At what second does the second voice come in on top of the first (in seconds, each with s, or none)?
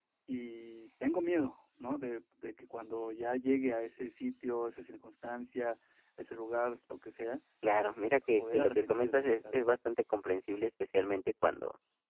8.4 s